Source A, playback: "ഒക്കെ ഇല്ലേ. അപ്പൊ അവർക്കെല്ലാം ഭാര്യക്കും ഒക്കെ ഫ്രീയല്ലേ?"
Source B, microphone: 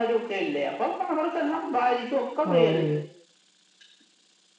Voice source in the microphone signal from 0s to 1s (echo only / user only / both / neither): echo only